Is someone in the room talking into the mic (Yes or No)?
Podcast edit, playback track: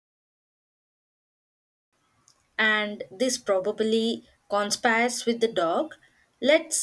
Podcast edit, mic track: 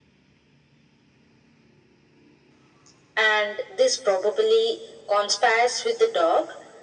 No